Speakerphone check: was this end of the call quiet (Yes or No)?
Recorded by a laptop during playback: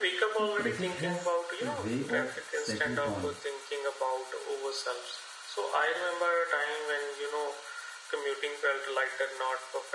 No